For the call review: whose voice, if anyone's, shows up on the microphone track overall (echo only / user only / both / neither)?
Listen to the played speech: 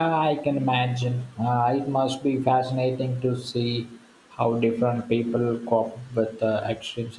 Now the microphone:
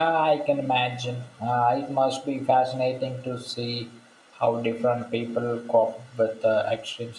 echo only